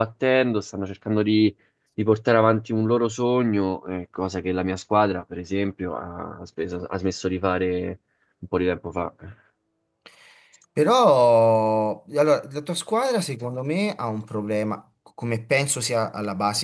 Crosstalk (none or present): none